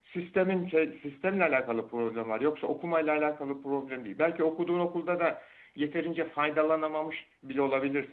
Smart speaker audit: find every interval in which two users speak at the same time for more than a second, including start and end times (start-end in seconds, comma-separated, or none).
none